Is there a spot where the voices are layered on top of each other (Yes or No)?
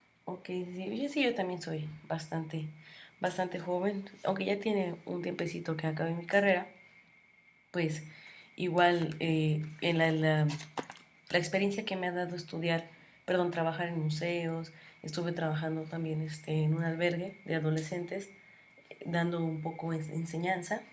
No